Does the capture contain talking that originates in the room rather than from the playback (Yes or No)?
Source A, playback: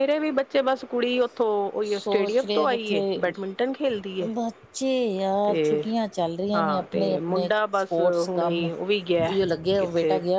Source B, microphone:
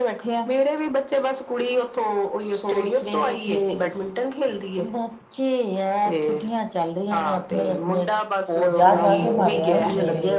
Yes